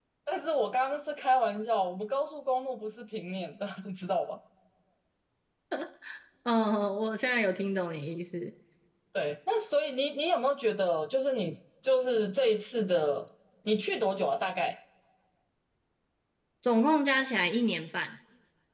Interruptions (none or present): none